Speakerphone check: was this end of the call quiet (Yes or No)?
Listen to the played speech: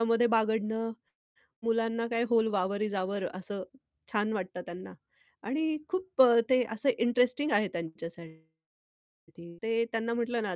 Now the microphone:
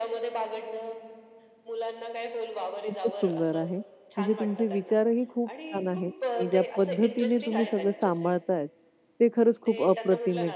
No